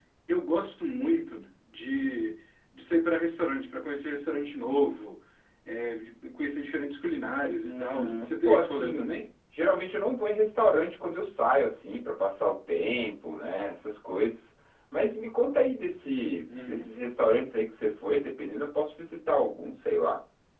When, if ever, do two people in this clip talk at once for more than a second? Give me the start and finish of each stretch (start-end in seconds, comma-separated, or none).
7.6-9.2